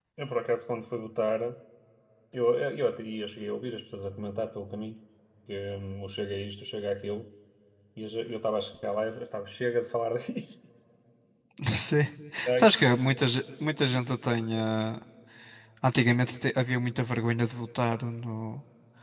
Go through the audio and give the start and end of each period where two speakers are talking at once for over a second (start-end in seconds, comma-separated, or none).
none